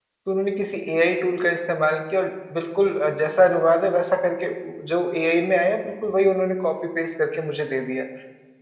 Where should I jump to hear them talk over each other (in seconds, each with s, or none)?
none